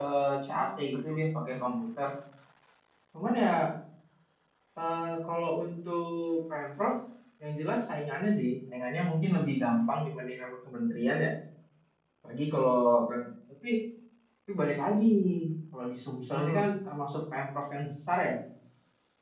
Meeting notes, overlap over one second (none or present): present